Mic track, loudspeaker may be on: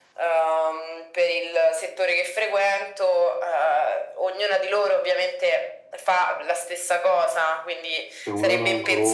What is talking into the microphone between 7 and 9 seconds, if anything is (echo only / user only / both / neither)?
both